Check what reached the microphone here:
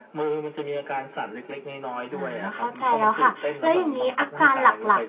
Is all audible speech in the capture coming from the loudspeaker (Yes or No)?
No